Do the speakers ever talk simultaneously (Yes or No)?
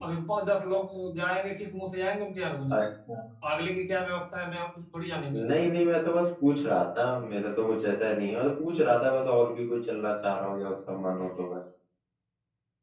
No